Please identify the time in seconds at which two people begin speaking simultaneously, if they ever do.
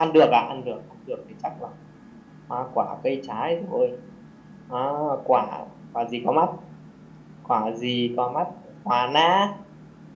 none

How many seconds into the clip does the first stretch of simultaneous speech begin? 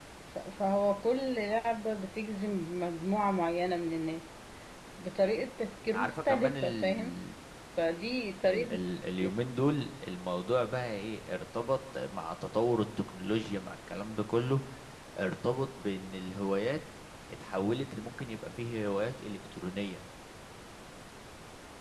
5.9 s

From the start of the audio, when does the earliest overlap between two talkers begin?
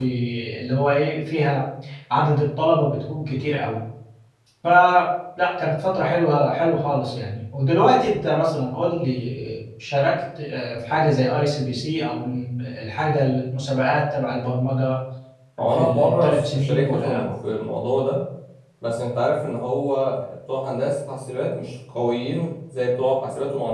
15.8 s

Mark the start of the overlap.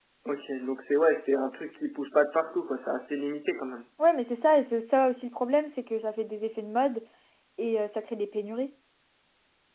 none

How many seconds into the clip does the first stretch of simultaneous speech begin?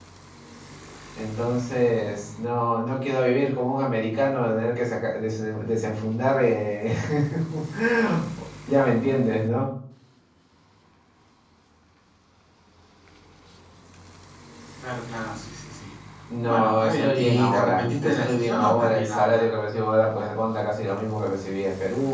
16.5 s

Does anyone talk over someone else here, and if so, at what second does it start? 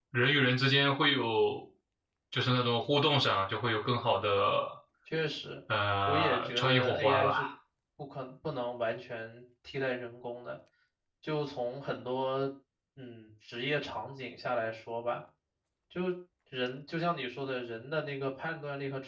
6.1 s

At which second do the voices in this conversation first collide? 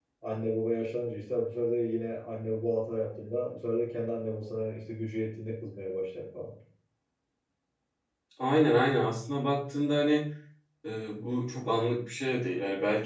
none

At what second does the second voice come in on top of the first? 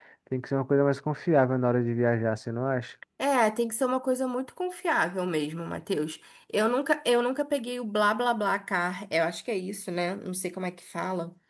none

